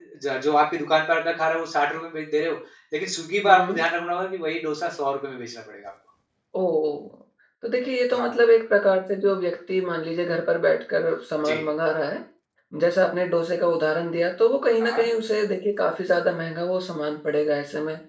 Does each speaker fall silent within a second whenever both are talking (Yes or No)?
Yes